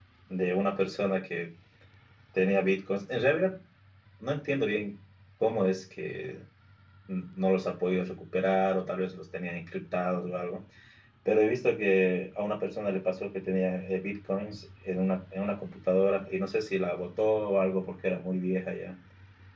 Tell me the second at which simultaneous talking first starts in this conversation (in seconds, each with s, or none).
none